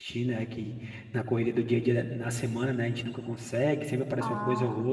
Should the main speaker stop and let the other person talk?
No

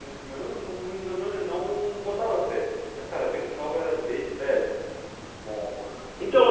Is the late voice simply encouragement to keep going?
No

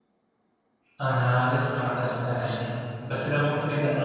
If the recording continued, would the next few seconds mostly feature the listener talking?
No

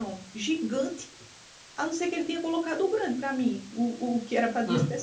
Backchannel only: Yes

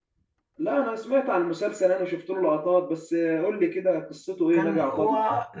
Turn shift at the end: Yes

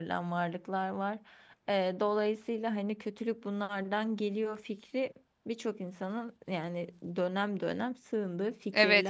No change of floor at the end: No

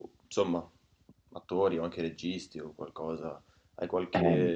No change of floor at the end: Yes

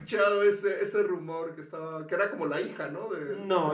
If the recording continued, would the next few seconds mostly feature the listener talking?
Yes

